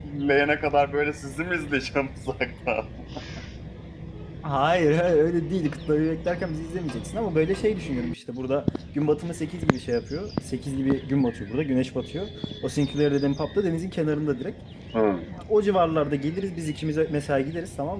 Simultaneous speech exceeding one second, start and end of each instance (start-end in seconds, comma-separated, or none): none